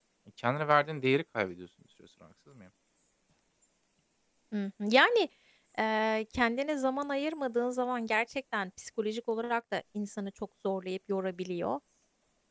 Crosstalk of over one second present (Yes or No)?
No